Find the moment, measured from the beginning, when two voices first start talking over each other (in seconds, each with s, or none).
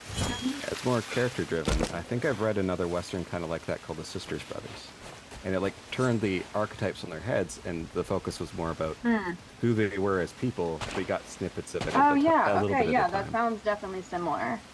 11.9 s